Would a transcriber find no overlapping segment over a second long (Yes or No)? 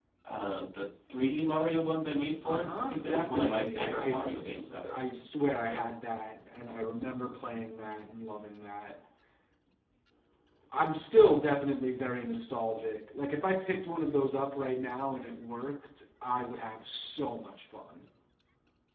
No